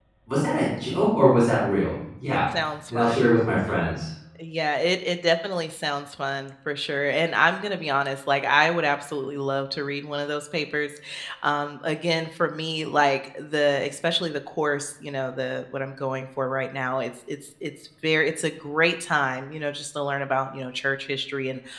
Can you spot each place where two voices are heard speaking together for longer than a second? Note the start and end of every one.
none

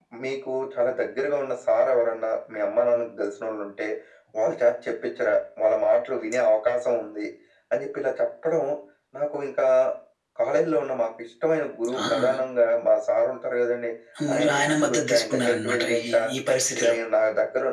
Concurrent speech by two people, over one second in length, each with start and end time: 14.3-16.2

